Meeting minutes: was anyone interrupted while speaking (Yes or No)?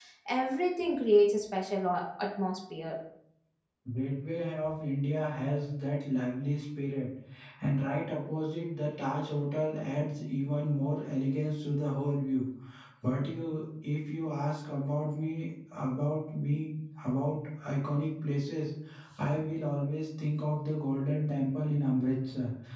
No